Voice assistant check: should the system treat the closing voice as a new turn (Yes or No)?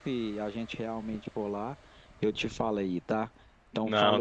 Yes